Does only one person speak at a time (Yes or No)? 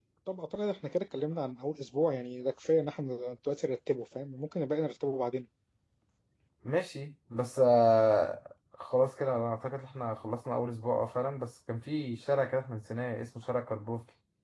Yes